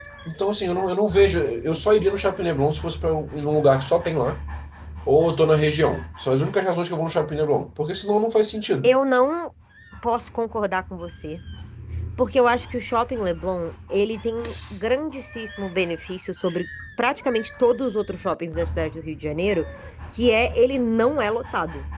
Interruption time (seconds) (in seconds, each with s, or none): none